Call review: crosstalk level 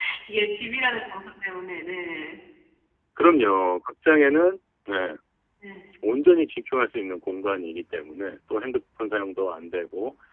none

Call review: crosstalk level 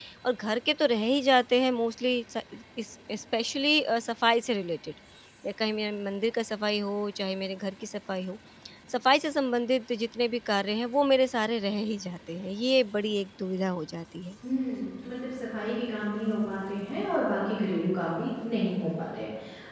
none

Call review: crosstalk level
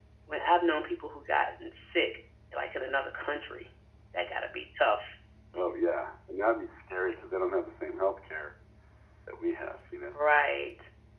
none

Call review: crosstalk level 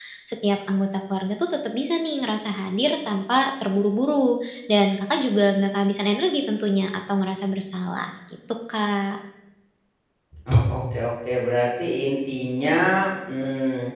none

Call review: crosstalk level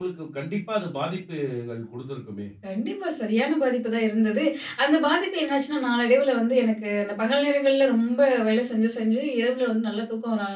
none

